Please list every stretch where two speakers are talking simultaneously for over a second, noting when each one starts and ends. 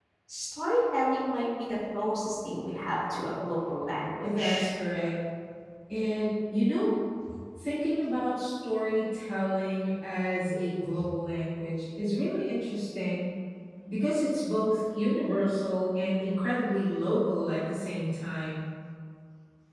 none

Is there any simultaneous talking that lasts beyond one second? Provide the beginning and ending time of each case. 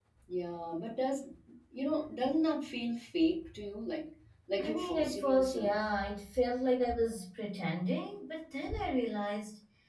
4.6-5.8

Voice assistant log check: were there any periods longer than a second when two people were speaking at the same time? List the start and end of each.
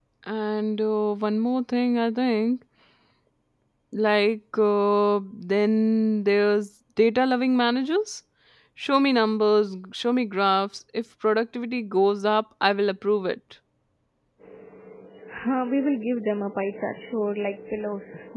none

